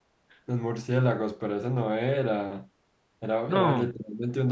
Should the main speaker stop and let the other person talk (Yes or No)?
No